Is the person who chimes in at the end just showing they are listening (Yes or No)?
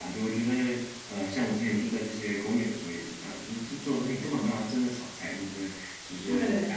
Yes